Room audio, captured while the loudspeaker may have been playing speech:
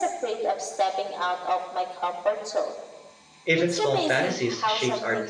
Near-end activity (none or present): present